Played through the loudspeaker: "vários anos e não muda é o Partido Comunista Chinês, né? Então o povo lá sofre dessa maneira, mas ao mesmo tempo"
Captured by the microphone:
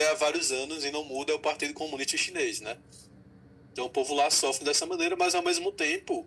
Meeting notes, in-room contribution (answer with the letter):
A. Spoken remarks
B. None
B